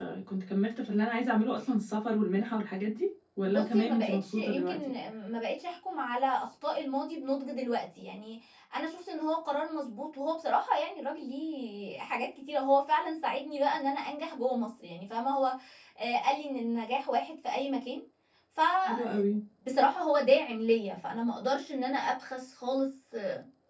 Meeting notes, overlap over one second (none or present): present